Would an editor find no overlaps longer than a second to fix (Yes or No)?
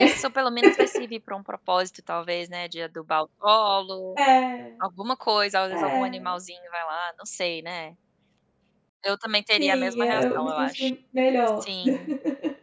No